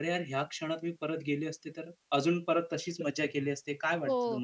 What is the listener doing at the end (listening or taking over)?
taking over